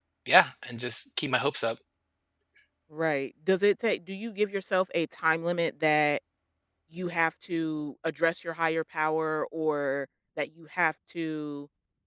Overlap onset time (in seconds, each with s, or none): none